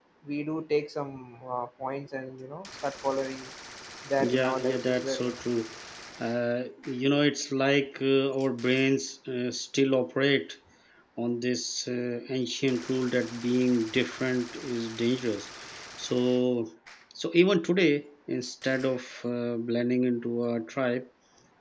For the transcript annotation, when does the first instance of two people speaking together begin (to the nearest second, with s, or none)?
4 s